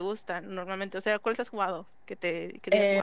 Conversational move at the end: taking over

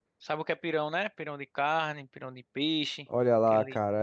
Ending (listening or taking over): taking over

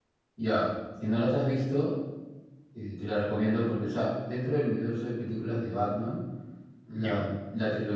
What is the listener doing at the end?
listening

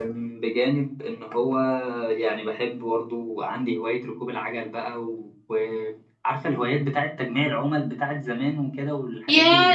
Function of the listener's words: taking over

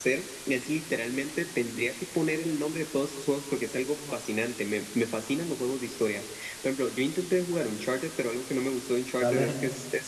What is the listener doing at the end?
listening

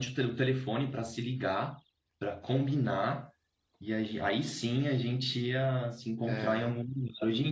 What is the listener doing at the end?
listening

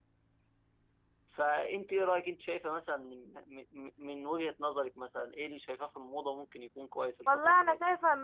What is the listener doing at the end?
taking over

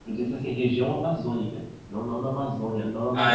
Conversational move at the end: taking over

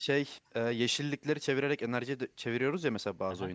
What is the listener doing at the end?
taking over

